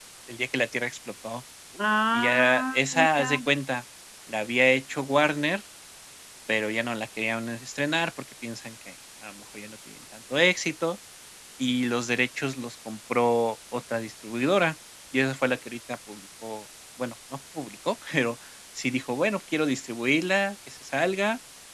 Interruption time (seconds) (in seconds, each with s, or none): 2.1 s